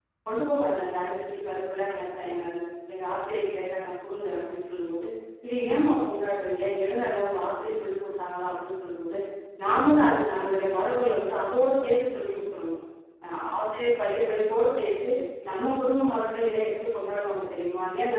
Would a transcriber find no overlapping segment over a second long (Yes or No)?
Yes